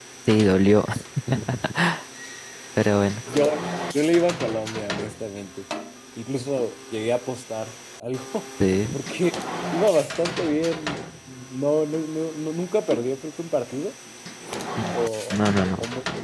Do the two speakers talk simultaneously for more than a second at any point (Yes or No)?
No